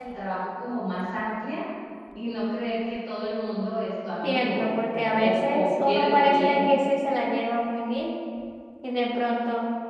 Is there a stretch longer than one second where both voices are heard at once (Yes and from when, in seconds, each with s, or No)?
Yes, from 4.2 s